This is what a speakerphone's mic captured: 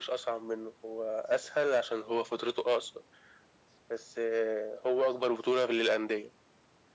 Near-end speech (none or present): none